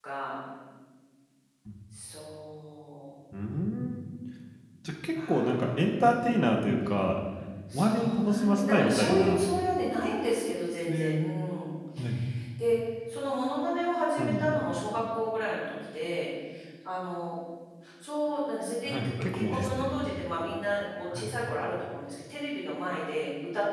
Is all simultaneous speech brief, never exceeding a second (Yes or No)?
No